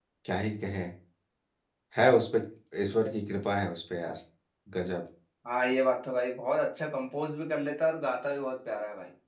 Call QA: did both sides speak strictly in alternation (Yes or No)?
Yes